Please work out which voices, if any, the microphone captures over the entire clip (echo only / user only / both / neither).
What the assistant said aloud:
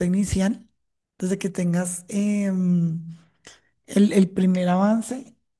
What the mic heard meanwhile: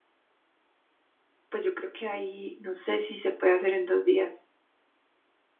user only